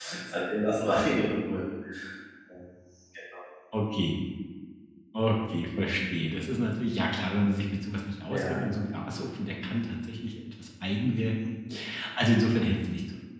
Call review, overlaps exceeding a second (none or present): none